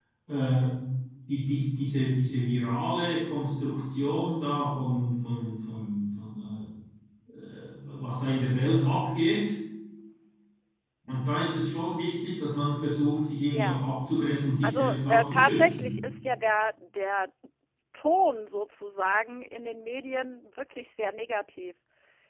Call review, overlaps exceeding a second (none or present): present